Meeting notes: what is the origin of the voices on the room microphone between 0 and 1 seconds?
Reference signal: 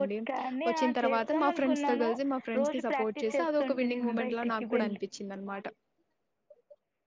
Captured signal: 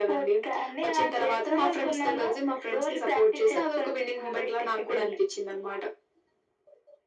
echo only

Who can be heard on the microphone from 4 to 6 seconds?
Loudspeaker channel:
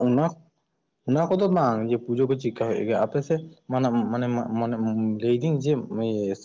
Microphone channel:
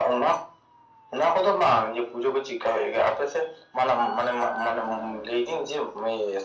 echo only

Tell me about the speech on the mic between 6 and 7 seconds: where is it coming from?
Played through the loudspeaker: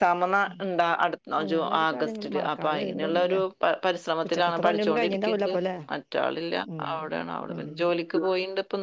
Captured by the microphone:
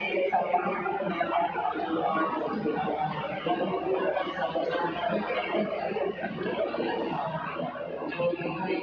both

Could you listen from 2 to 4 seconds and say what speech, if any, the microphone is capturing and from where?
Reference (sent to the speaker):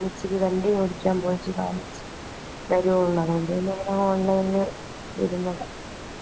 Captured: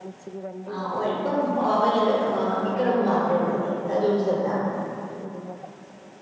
both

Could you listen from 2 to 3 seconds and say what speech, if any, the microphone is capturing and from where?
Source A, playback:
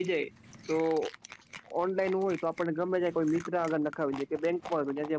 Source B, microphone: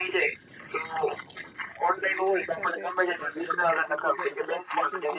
both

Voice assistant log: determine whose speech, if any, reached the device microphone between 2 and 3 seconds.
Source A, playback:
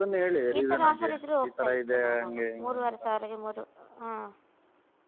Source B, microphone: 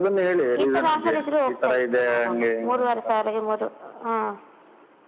echo only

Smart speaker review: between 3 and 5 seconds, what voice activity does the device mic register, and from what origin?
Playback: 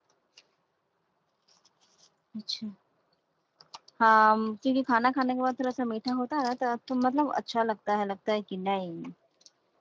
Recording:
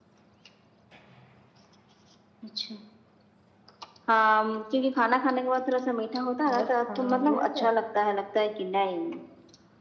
echo only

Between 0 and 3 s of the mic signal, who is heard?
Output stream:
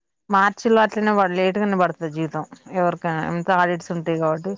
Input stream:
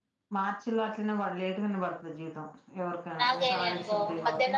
echo only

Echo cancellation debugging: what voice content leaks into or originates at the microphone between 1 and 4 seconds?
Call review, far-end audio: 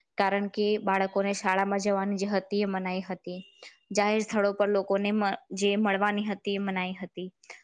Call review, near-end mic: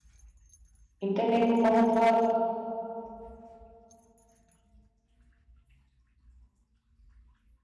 user only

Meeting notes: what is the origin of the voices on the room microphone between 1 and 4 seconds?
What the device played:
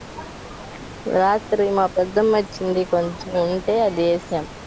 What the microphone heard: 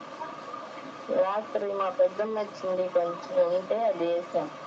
echo only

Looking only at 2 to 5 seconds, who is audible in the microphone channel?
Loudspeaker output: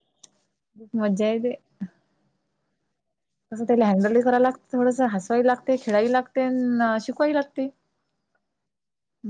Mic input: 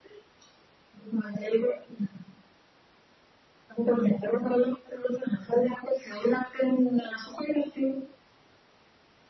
echo only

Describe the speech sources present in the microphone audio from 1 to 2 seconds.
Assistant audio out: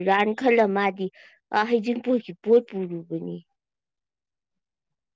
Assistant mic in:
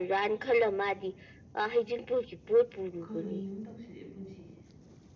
echo only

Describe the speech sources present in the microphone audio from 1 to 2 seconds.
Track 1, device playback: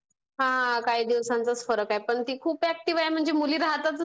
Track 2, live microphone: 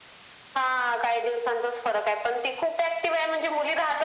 echo only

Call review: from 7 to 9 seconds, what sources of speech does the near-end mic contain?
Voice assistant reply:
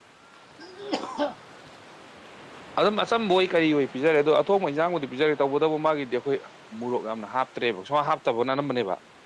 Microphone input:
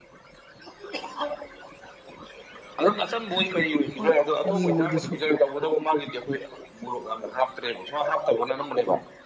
echo only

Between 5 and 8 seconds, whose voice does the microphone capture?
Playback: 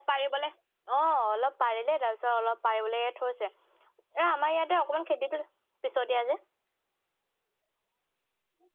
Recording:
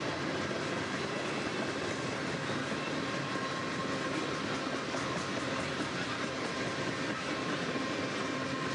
neither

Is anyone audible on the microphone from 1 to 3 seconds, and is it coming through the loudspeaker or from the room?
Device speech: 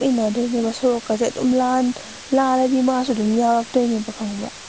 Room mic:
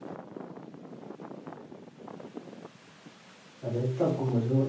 neither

